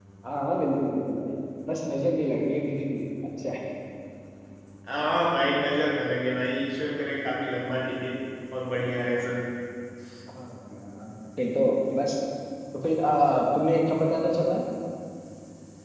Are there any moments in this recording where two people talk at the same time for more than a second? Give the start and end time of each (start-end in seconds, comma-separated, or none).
none